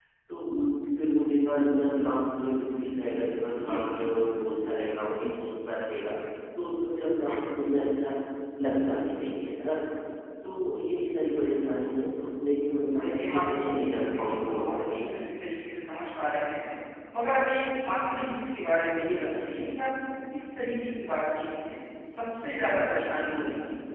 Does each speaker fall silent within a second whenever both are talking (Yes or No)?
No